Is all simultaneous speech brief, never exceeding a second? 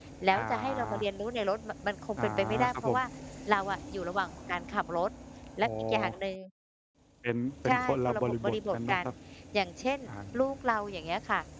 No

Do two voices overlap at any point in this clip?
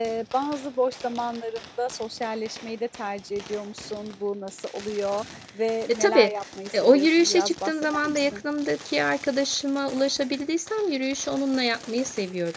Yes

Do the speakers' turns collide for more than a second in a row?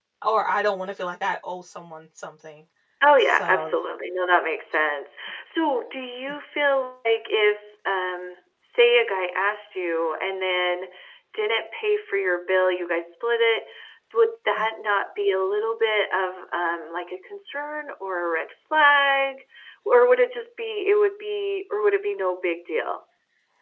No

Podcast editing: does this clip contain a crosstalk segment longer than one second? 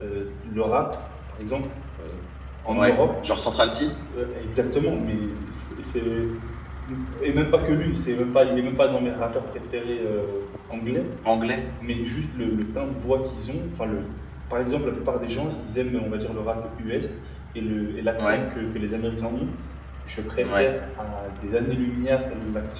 No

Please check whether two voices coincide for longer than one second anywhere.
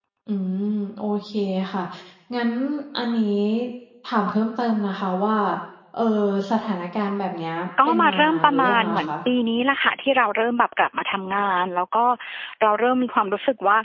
Yes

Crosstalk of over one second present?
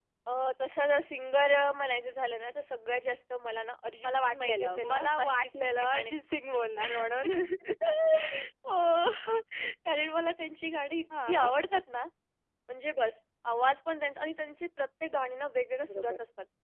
Yes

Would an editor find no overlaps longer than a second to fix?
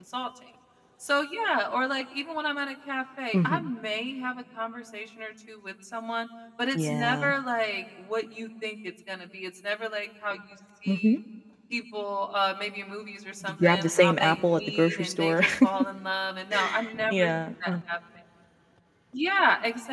No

